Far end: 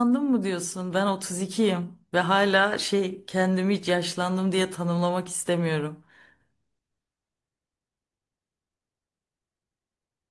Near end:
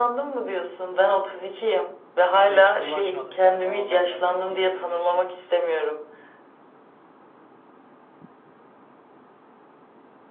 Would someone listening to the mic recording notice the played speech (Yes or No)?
Yes